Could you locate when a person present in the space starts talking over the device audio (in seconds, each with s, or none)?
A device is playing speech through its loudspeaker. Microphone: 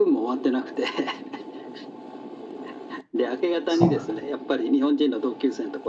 3.7 s